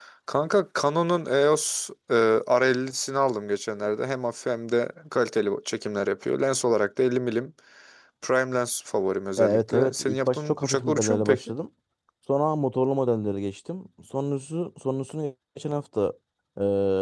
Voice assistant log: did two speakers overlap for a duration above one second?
Yes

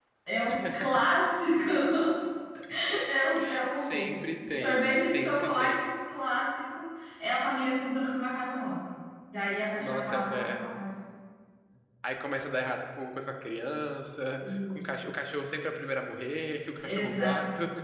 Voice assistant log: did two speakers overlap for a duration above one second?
Yes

